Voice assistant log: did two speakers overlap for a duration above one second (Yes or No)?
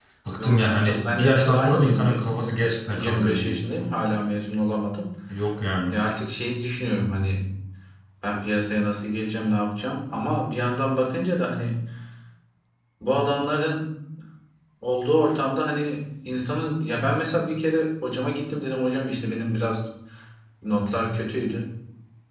Yes